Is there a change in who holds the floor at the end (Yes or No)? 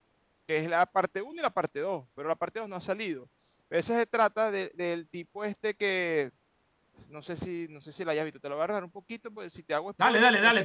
Yes